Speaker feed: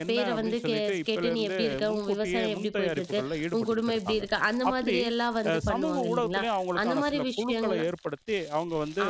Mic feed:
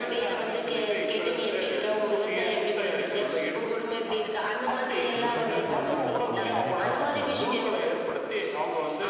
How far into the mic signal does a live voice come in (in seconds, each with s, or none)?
5.2 s